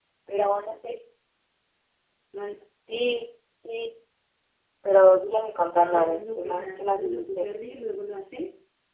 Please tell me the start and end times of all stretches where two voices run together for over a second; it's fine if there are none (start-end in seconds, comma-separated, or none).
5.8-7.5